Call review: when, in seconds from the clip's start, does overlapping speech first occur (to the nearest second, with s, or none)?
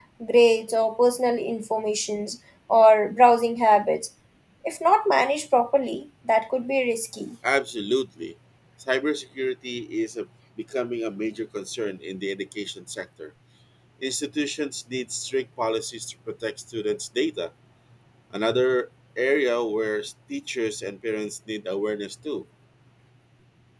none